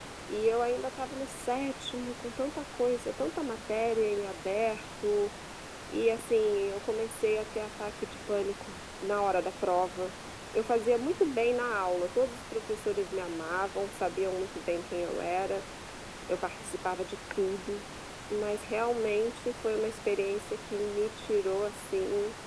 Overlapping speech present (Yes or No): No